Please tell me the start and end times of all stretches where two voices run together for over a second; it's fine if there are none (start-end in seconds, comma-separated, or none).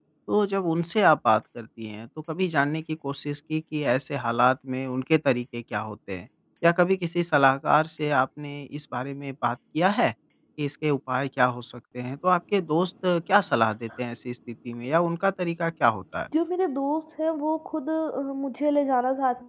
none